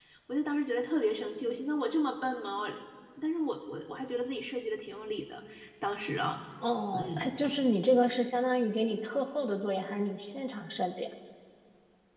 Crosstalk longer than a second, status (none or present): none